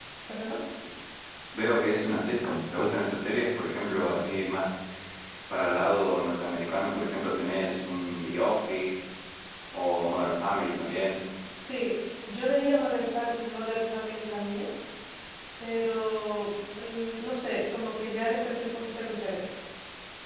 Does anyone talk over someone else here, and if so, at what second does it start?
none

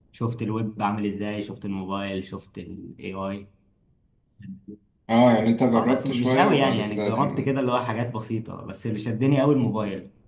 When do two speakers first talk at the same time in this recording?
5.8 s

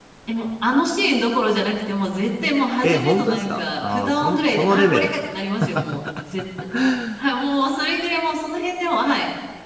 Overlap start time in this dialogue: 2.8 s

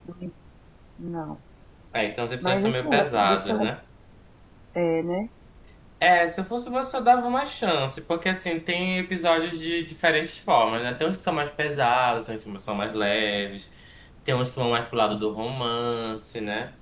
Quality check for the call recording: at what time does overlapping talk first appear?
2.4 s

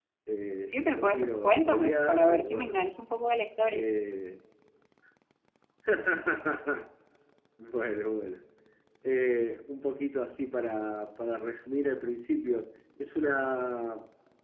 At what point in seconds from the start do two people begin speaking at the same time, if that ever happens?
0.7 s

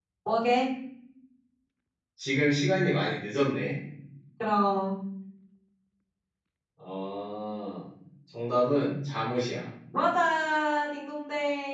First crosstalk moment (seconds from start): none

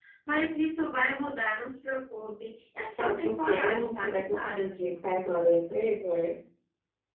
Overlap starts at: 3.0 s

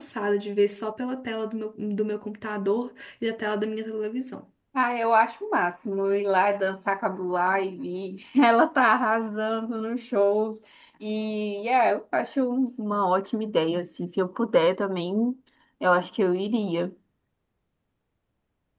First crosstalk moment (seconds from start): none

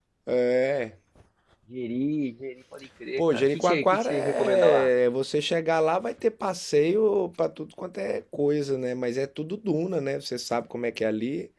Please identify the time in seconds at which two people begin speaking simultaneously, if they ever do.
3.2 s

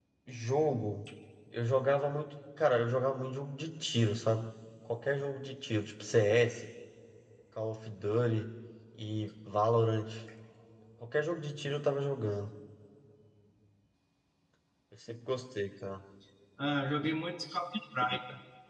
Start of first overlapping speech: none

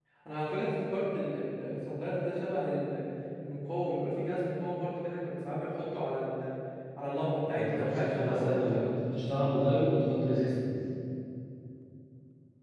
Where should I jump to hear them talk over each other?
7.5 s

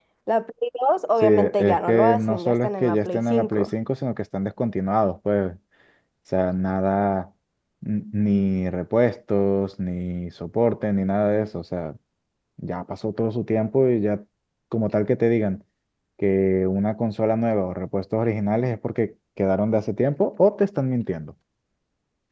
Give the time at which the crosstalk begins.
1.2 s

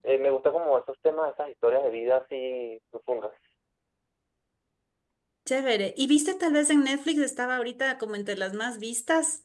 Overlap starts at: none

